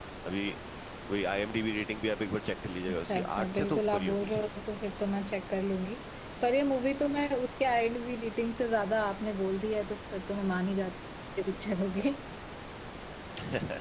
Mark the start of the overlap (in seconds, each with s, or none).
3.0 s